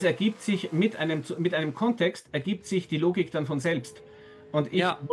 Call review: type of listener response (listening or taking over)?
listening